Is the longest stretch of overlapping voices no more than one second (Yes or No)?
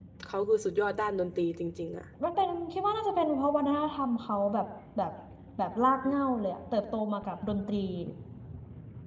Yes